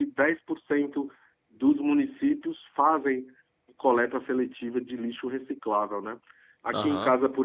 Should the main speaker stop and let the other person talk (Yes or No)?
No